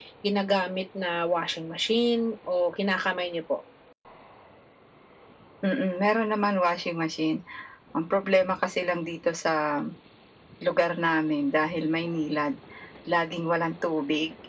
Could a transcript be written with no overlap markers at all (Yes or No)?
Yes